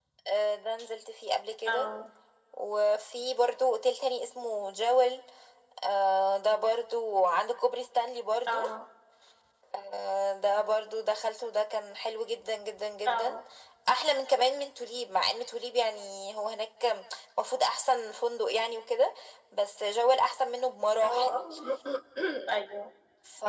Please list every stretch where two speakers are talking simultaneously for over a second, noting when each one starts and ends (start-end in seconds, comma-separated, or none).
none